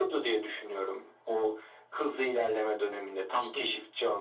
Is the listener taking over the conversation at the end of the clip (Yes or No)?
No